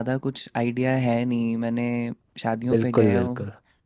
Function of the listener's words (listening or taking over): listening